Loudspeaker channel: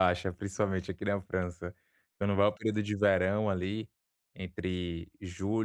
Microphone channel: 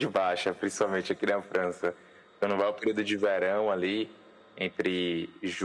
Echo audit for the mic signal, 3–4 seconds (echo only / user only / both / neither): echo only